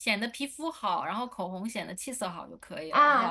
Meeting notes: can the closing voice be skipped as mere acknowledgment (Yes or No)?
No